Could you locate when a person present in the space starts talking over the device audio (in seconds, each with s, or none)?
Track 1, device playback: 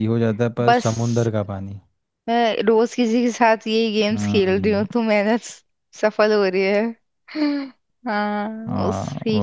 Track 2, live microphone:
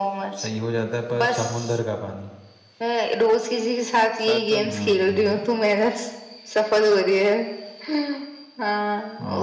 4.2 s